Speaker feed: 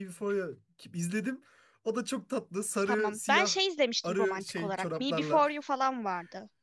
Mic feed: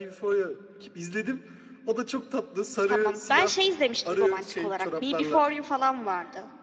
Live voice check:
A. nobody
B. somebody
A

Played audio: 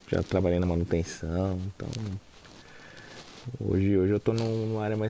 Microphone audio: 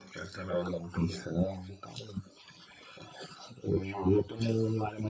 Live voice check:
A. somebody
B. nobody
B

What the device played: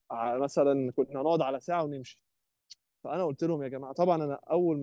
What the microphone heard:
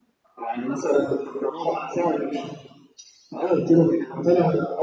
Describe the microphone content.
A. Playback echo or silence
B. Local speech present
A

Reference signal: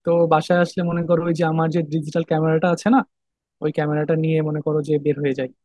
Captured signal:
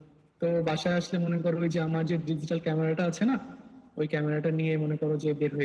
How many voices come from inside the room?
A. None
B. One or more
A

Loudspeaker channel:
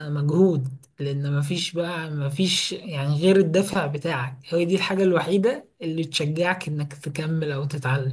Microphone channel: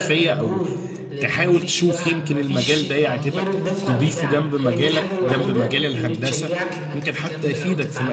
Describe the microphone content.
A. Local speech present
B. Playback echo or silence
A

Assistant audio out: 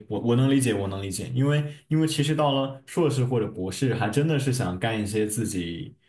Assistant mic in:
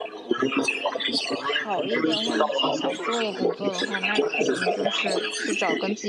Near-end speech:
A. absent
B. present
B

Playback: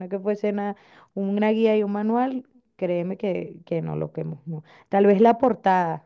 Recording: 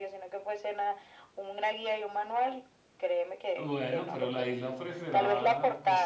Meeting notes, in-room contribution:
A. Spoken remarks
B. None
A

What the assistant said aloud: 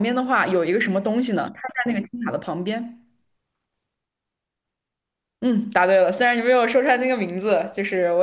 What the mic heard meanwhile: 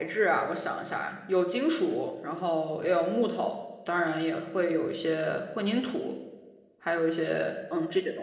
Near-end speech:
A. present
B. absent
A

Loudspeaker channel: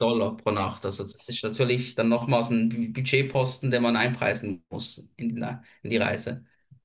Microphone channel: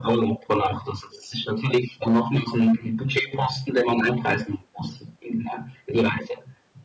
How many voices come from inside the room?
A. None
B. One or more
A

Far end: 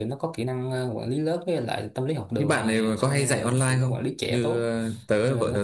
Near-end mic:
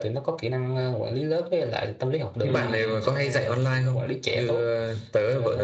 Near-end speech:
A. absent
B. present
B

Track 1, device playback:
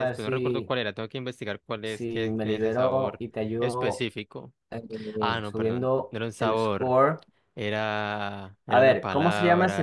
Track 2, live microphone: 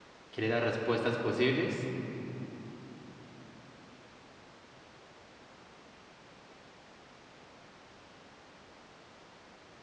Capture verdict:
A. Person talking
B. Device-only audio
A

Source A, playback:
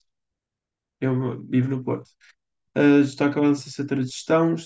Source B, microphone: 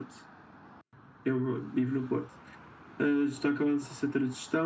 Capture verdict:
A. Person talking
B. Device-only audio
B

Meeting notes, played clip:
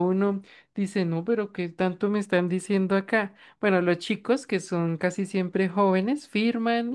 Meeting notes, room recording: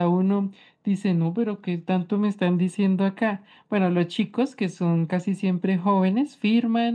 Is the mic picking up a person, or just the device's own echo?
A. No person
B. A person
A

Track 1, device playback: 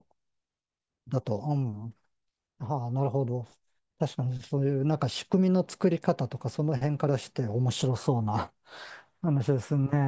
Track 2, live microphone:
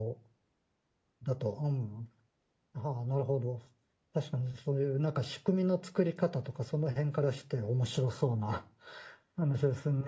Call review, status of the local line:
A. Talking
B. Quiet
B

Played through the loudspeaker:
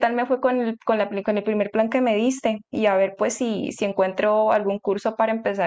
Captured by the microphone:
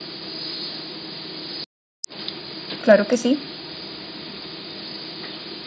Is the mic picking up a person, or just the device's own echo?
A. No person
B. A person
B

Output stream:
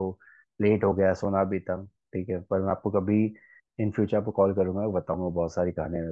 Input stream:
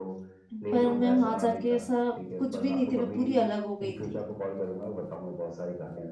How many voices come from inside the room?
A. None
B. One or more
B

